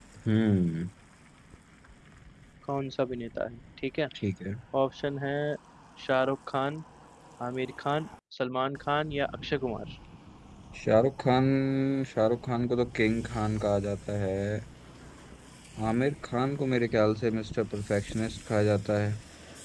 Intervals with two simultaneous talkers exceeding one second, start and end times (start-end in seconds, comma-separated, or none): none